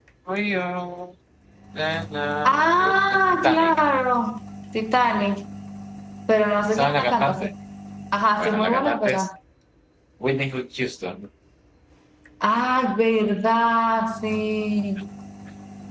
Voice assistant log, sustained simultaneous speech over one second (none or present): present